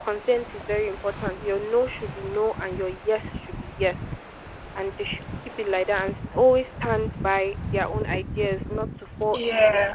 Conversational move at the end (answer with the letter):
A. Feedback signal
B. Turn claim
A